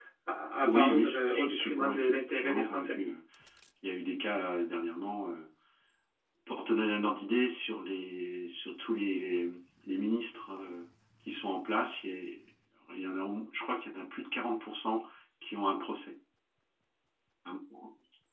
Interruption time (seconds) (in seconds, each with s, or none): 0.6 s